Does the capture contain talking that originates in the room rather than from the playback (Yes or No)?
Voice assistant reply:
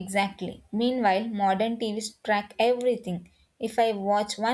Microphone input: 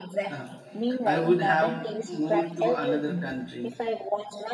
Yes